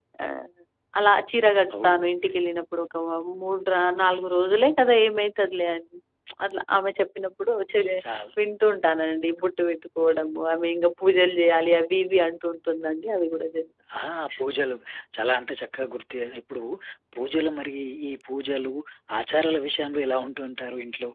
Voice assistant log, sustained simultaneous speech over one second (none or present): none